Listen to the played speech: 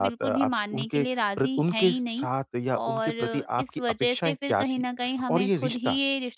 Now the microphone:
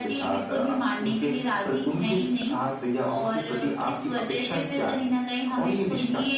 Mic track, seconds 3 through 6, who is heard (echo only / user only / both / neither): echo only